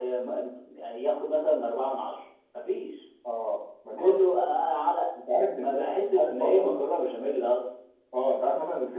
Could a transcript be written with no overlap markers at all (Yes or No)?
No